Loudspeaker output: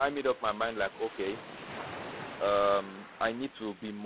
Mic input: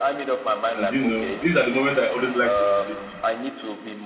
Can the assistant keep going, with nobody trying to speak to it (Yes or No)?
No